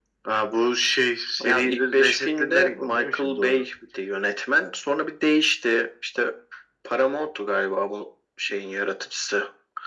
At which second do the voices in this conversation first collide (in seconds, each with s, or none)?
1.4 s